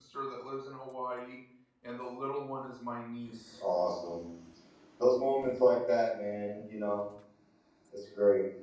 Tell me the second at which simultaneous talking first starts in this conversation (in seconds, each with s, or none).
none